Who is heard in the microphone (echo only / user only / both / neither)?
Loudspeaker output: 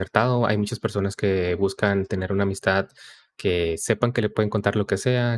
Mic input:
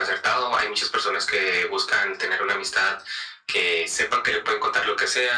echo only